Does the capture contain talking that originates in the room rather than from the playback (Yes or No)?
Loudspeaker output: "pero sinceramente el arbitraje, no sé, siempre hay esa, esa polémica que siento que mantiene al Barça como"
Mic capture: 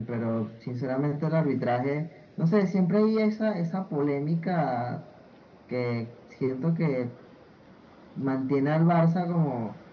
No